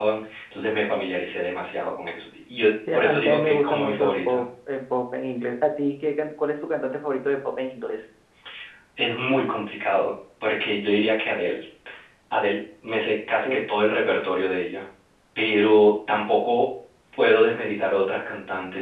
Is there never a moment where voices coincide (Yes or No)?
No